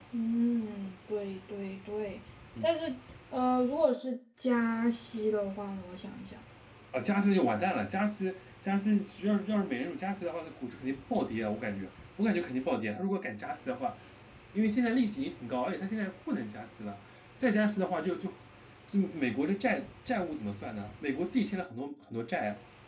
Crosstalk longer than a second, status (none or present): none